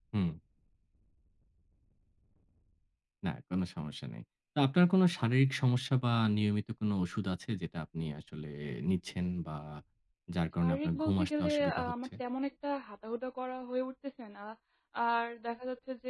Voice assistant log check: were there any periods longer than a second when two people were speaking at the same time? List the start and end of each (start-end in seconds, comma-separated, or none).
10.6-12.1